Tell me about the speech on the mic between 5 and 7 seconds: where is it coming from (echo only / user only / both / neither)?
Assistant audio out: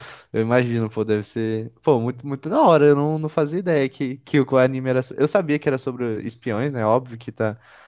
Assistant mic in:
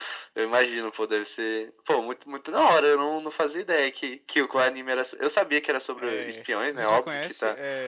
both